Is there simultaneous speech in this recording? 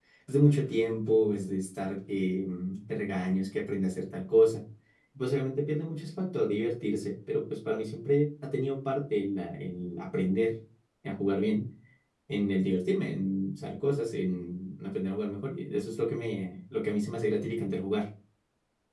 No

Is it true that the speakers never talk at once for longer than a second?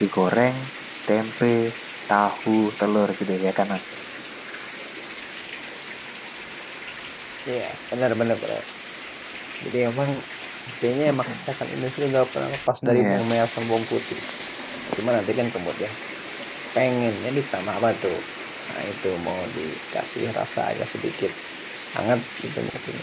Yes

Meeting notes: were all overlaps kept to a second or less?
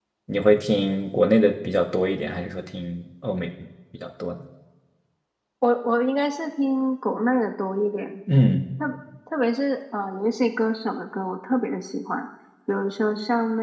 Yes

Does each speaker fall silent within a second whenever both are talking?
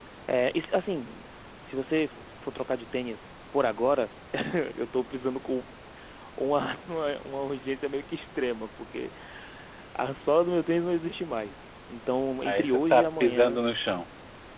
No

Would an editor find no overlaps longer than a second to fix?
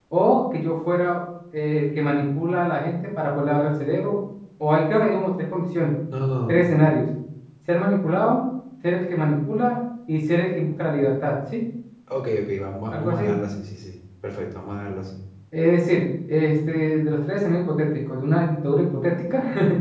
Yes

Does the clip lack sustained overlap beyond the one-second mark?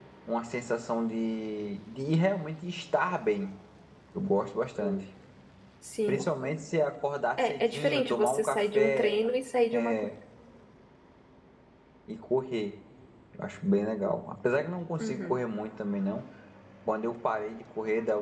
No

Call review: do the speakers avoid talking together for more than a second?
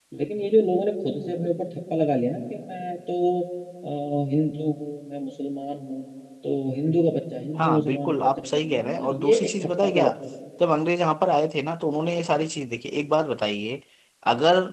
No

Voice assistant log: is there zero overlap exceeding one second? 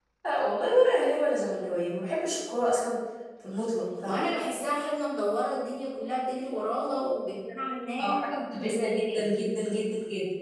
No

